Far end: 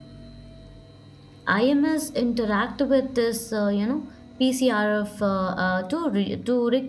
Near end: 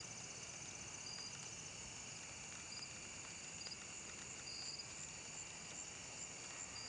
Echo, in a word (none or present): none